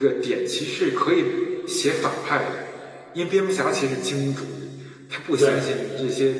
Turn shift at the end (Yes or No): No